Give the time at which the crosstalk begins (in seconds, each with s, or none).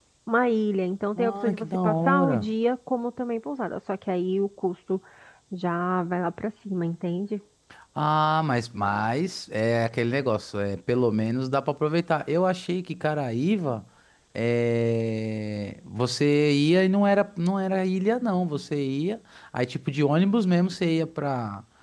1.2 s